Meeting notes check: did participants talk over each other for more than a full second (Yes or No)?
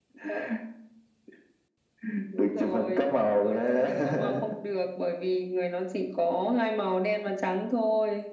Yes